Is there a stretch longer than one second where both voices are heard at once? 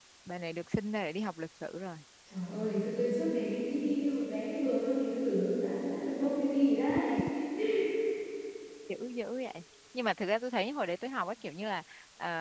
No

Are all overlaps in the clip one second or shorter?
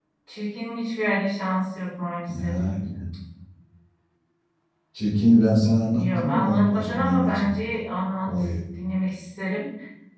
No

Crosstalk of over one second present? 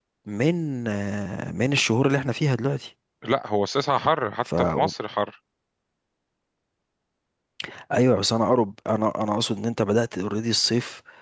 No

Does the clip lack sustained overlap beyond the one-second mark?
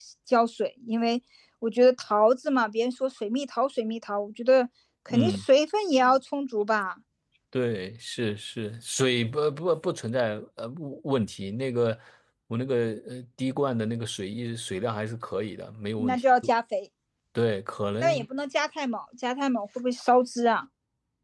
Yes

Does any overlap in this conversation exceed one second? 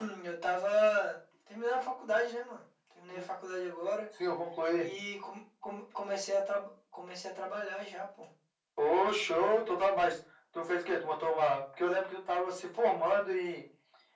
No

